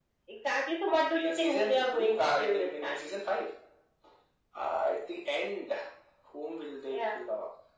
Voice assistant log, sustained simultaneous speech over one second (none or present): present